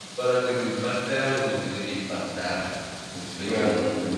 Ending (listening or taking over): listening